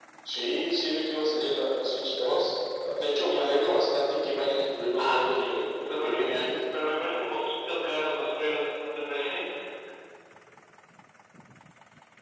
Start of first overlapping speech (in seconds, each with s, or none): 5.0 s